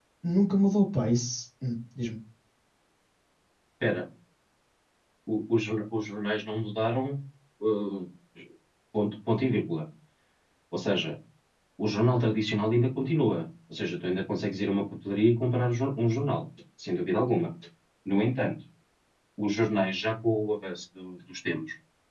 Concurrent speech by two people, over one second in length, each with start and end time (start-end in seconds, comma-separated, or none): none